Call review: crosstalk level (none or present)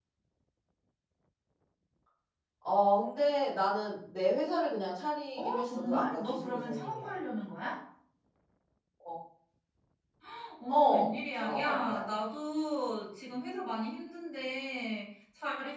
present